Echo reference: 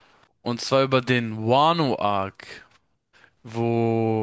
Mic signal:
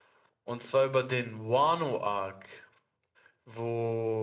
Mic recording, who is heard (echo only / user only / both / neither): echo only